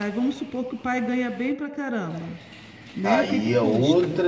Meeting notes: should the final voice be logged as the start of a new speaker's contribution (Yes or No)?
Yes